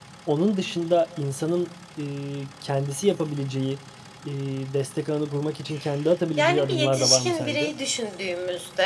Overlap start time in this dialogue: 6 s

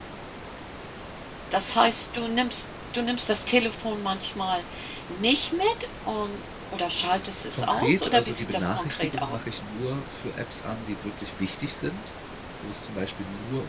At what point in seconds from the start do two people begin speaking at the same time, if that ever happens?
8 s

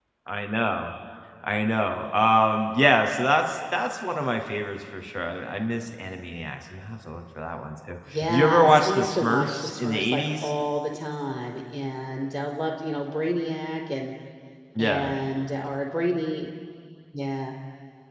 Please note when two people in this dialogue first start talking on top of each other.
8 s

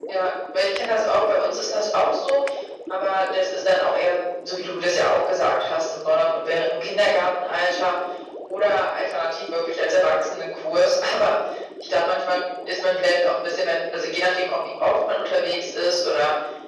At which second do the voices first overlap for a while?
1 s

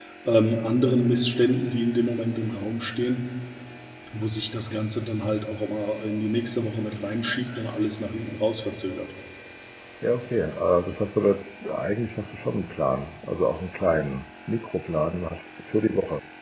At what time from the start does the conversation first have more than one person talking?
none

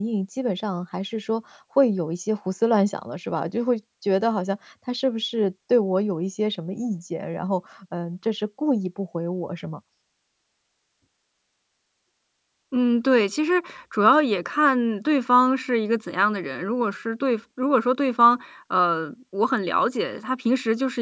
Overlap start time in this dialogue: none

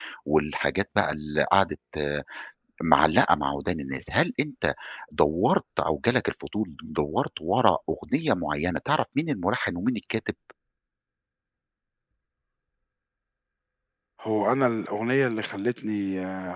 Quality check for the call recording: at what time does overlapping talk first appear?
none

